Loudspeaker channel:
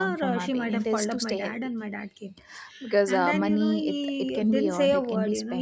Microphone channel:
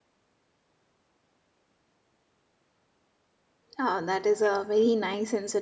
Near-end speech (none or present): present